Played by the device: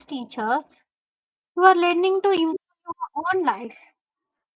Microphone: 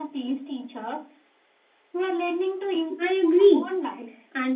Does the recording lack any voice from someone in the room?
No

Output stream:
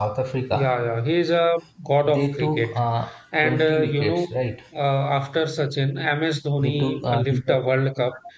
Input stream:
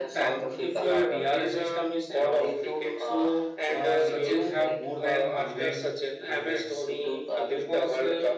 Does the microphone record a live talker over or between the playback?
Yes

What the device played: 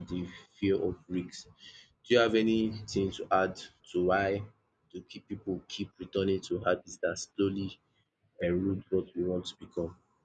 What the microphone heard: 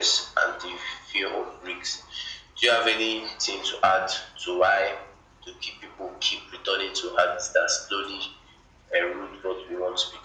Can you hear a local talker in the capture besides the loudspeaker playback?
No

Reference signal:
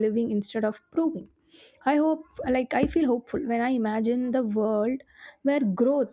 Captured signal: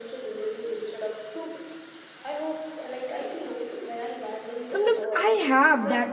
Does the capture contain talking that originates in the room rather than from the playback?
Yes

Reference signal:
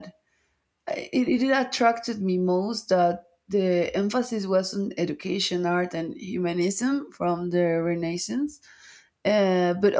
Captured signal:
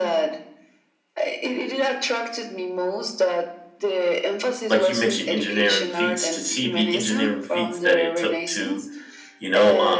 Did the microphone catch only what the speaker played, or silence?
No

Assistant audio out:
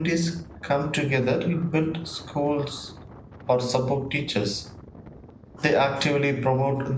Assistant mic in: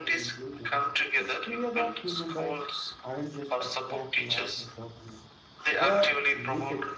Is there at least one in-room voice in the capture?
Yes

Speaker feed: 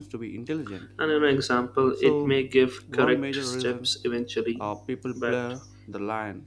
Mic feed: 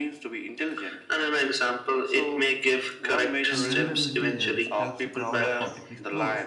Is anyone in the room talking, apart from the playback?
Yes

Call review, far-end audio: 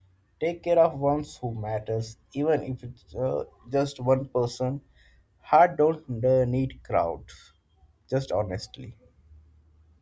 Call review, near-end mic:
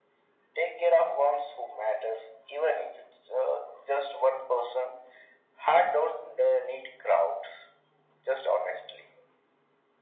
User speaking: No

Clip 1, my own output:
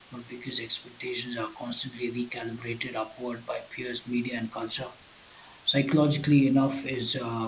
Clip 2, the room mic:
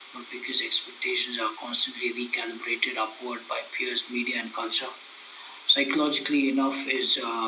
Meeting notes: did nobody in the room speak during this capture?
Yes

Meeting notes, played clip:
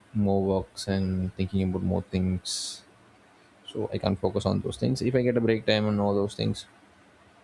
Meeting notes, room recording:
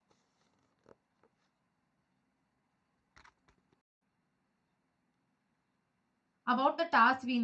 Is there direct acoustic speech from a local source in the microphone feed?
Yes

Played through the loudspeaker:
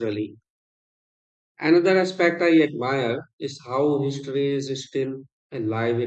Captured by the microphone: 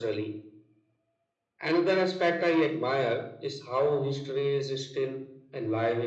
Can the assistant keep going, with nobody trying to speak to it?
Yes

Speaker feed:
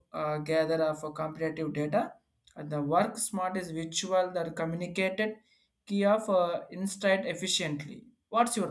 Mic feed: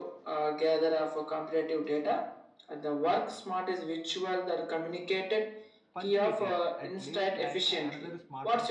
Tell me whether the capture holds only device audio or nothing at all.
No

